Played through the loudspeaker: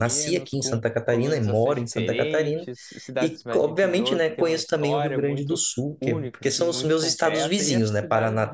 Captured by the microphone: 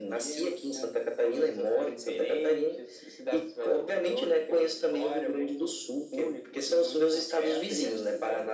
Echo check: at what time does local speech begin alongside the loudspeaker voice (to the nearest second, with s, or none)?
none